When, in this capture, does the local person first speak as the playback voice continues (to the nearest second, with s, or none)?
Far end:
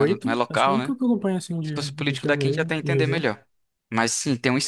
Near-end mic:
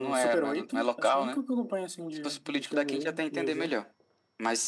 none